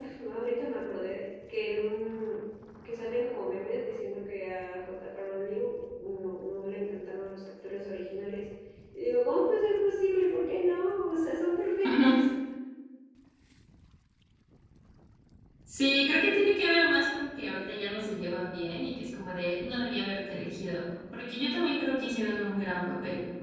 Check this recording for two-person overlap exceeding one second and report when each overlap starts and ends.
none

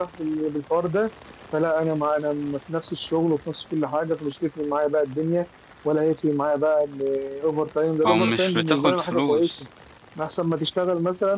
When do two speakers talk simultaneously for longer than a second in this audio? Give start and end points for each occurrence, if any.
8.1-9.5

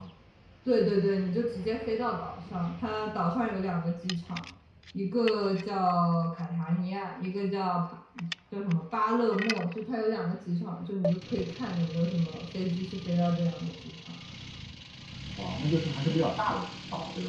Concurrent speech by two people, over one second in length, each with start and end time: none

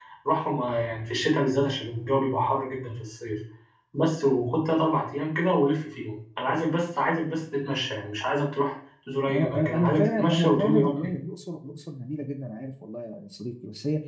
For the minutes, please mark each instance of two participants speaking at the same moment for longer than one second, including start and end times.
9.3-11.1

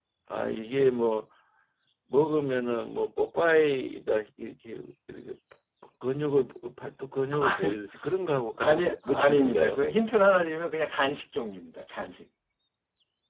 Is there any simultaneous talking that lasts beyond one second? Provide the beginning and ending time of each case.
8.6-9.8

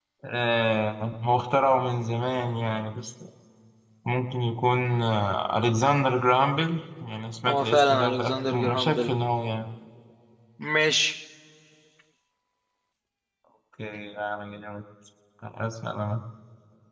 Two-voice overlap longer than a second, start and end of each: 7.5-9.1

